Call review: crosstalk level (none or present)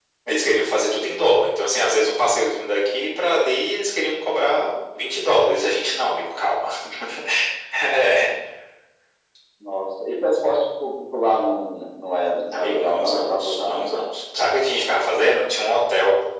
present